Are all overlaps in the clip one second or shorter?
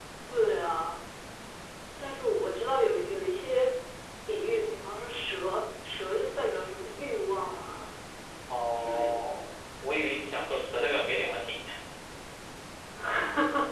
Yes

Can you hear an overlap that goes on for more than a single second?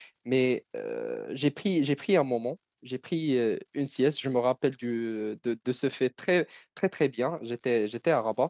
No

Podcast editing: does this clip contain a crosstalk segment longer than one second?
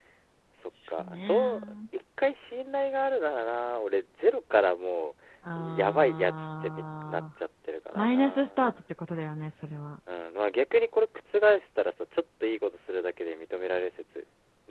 Yes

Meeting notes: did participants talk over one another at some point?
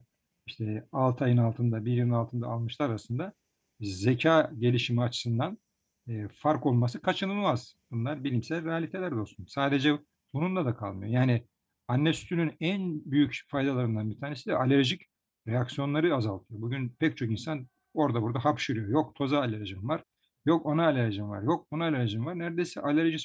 No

